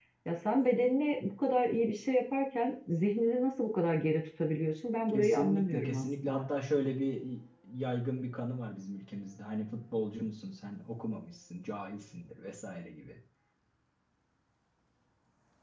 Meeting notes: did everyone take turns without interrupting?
No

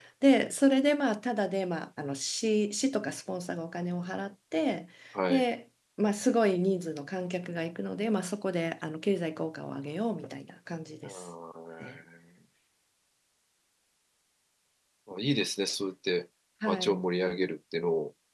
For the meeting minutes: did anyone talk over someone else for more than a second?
No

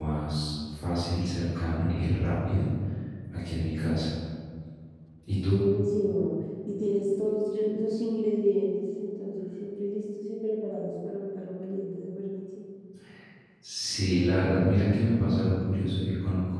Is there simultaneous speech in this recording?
No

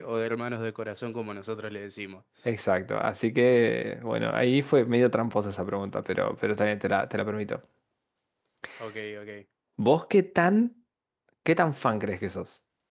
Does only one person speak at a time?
Yes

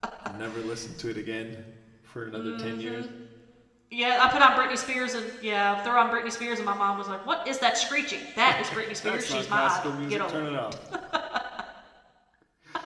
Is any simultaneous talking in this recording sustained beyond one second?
Yes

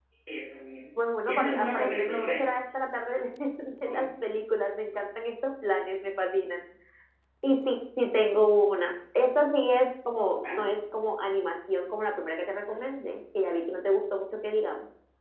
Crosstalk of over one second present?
Yes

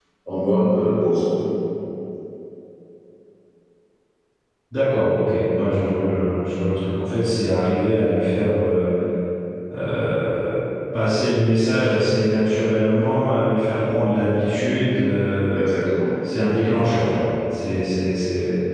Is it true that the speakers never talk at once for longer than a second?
Yes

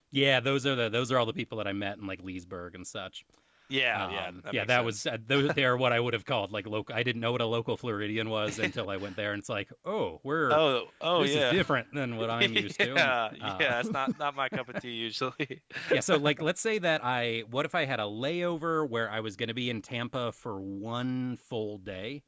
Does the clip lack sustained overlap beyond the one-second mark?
No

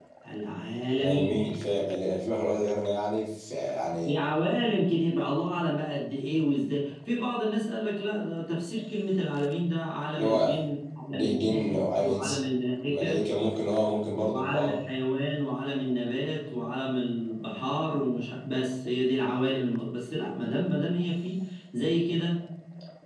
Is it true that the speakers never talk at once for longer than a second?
No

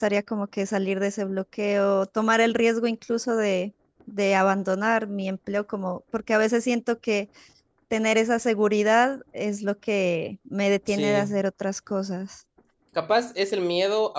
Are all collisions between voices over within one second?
Yes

